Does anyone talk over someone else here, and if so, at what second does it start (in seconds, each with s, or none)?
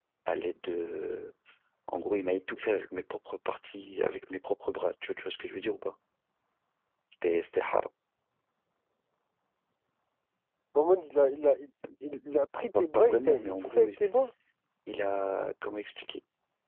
12.7 s